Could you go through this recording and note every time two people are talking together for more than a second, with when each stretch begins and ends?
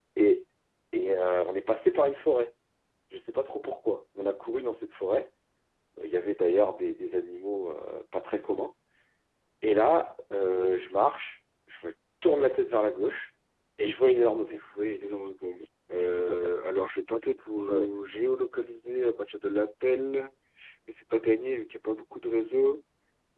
none

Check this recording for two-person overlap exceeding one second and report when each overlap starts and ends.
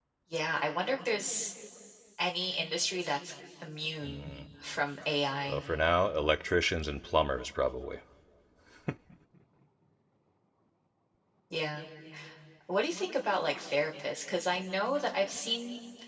none

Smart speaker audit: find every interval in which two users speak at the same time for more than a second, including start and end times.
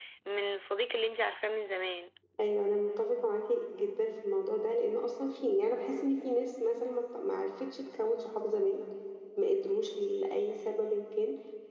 none

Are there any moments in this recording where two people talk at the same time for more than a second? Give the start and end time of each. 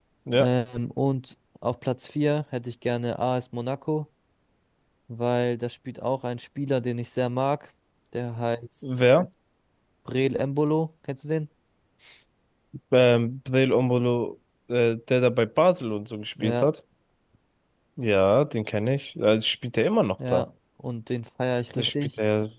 none

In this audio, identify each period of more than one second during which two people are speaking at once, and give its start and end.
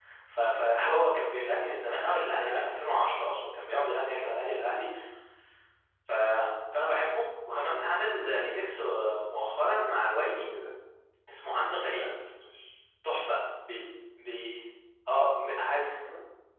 none

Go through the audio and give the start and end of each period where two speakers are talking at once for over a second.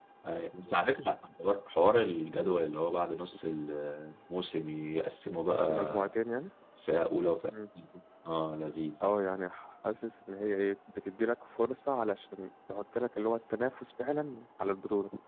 none

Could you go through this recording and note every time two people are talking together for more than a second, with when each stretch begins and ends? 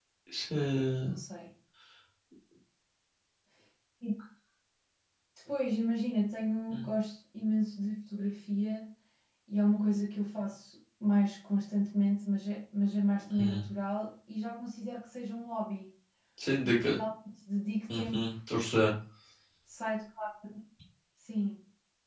none

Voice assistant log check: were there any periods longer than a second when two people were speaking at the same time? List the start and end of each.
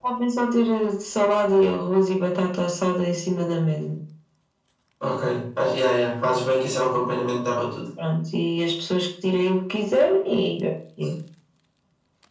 none

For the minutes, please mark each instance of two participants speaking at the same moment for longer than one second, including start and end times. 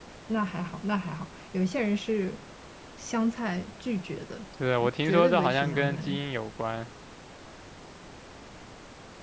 4.8-6.2

